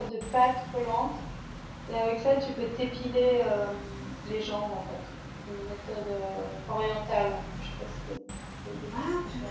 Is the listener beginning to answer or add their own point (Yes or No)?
Yes